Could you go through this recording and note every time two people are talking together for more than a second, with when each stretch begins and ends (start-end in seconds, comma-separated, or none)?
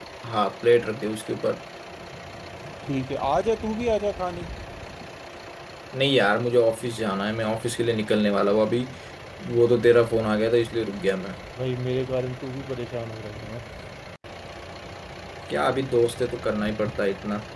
none